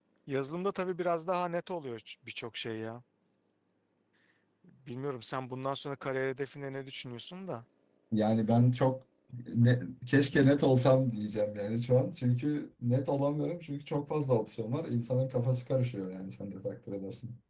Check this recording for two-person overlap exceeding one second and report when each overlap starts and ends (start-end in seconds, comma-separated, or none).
none